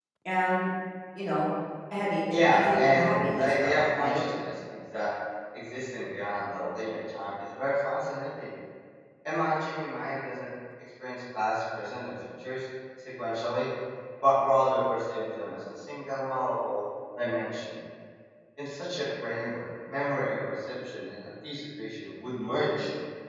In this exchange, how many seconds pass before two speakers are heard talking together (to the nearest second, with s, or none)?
2 s